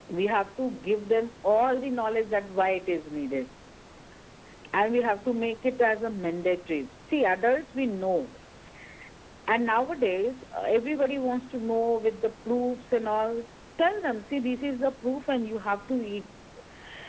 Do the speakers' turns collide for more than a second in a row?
No

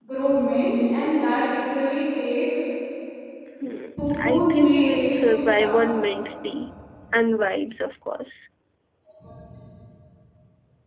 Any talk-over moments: Yes, from 4.2 s

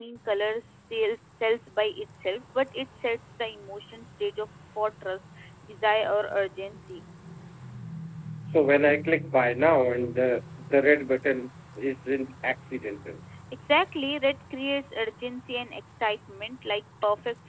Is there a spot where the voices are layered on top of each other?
No

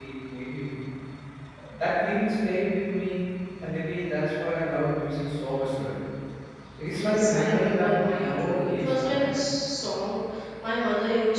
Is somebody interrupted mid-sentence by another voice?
Yes, from 7.0 s

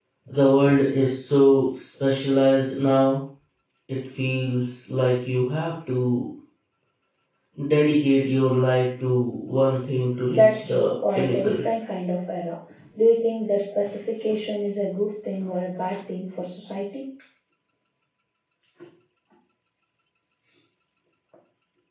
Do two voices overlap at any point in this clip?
Yes, from 10.3 s

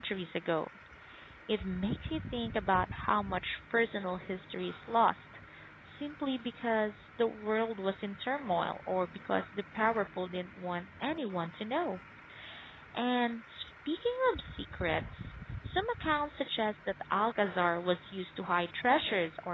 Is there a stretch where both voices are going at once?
No

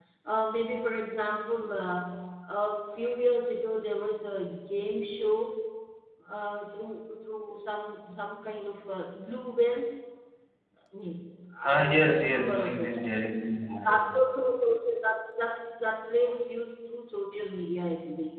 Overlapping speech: Yes, from 11.7 s

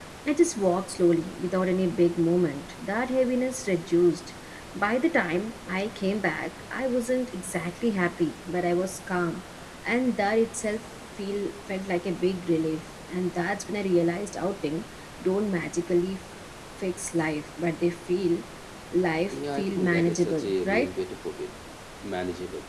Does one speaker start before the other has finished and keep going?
Yes, from 19.3 s

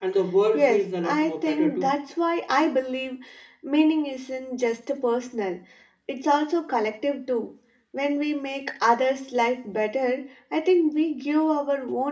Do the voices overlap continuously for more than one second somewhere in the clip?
Yes, from 0.5 s

